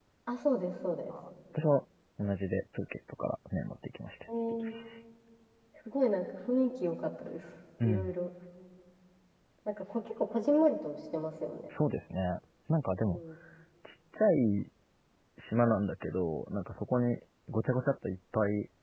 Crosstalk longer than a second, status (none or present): none